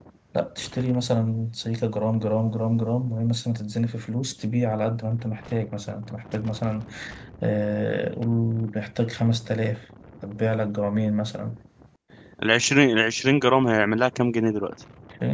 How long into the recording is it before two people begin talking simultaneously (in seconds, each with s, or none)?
none